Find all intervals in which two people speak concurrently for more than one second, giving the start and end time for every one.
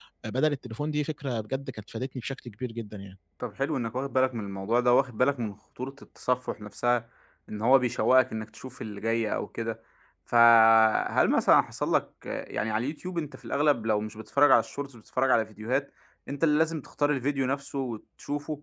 none

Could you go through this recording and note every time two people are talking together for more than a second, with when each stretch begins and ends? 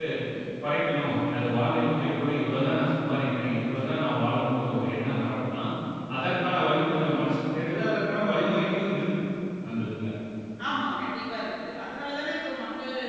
none

